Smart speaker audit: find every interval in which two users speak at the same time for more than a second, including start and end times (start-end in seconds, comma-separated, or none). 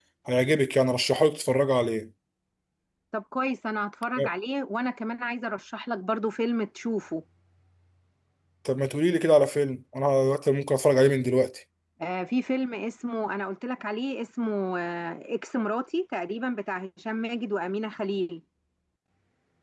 none